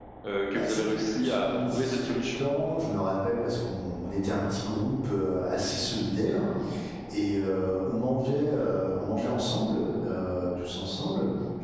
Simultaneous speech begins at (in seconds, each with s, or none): 0.5 s